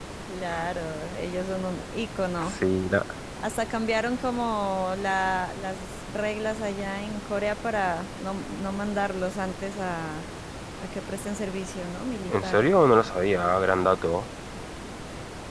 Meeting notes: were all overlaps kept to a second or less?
Yes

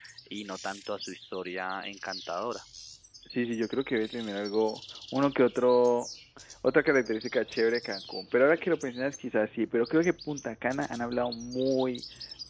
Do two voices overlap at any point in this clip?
No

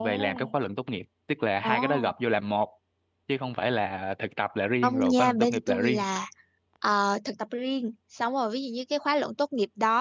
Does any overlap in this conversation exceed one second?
Yes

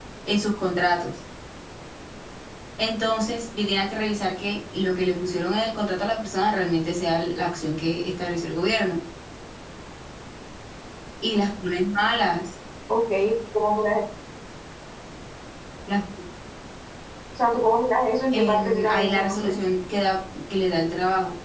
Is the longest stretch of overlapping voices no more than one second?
No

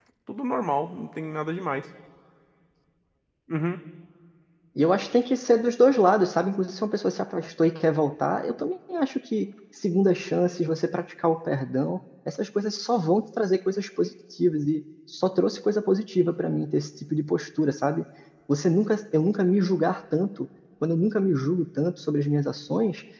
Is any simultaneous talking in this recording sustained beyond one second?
No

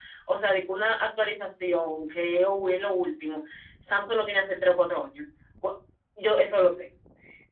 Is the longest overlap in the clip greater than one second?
No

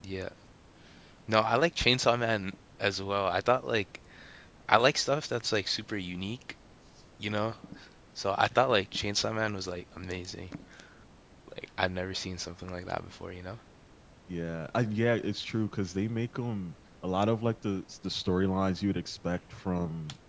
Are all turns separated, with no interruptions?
Yes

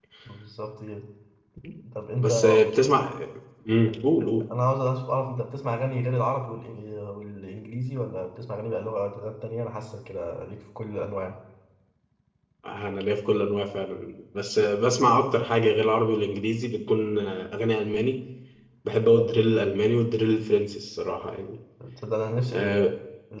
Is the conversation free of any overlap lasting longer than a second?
Yes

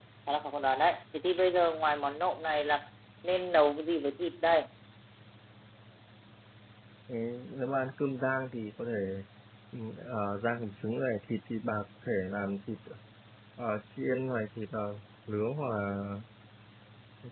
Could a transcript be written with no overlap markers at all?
Yes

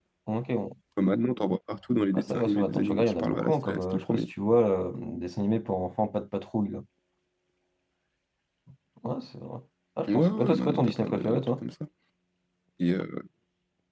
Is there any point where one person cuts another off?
Yes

